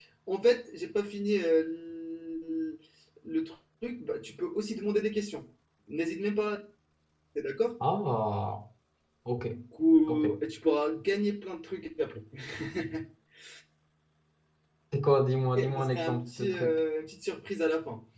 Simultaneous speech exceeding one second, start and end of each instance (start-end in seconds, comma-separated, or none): 15.6-16.8